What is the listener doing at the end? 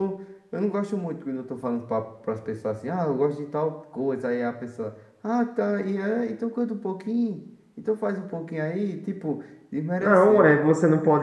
taking over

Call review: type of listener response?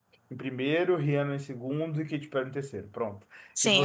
taking over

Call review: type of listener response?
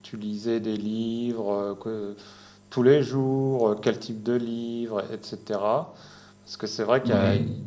listening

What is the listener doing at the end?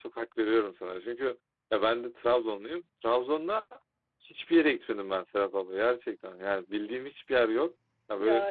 listening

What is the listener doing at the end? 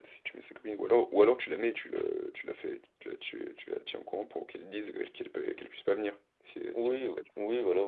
taking over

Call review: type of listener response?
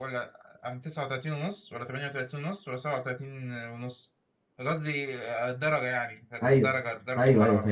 taking over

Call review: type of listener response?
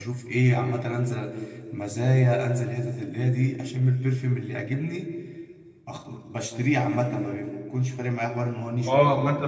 taking over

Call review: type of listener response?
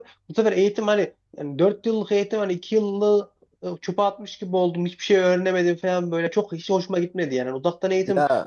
listening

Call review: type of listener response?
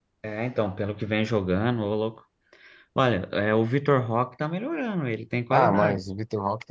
taking over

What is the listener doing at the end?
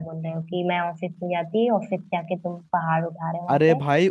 taking over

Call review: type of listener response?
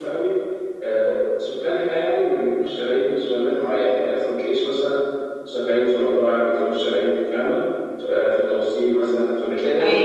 listening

